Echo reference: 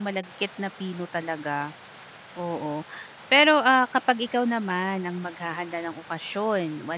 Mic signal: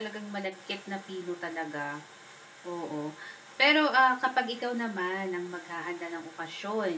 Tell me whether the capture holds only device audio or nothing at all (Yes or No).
Yes